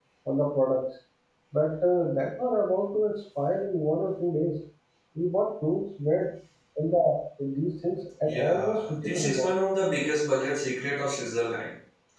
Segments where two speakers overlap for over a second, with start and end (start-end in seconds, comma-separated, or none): 8.2-9.5